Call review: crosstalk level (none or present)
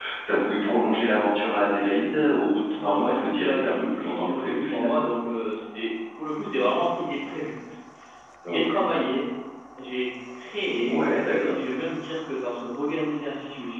present